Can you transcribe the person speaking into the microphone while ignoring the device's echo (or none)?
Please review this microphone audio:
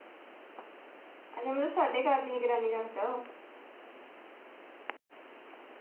ਅੱਛਾ ਮਤਲਬ ਸਾਡੇ ਘਰ ਦੀ ਨਿਰਾਨੀ ਰੱਖਦਾ ਉਹ।